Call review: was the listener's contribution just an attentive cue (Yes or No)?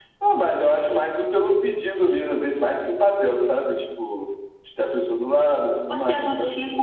No